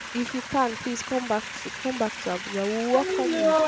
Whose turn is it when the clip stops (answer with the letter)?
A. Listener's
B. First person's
A